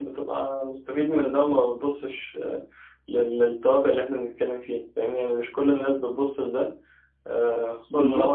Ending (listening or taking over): listening